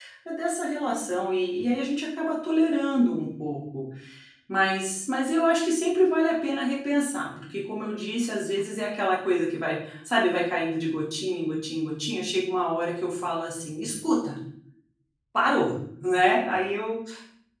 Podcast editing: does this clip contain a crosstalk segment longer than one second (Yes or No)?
No